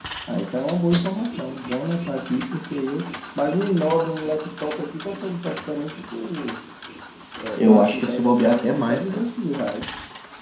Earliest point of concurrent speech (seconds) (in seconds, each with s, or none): 7.6 s